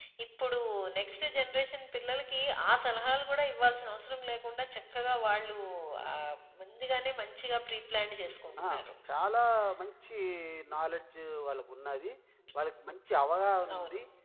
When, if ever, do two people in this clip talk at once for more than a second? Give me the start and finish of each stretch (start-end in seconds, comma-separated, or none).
none